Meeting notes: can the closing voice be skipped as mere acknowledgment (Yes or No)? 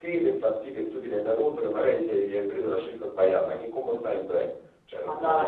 No